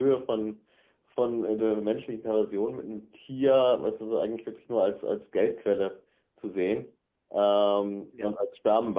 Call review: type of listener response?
listening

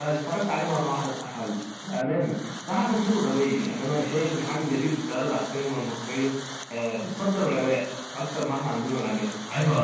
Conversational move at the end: taking over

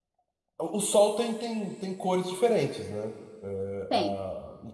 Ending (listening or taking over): listening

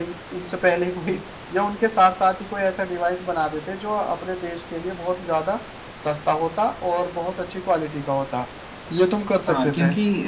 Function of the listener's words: taking over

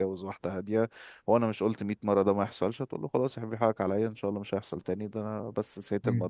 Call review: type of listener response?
listening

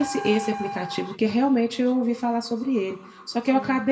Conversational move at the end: listening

